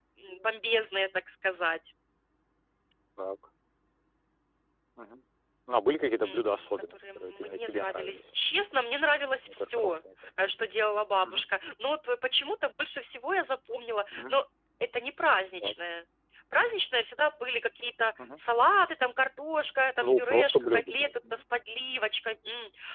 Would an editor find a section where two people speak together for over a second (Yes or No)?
Yes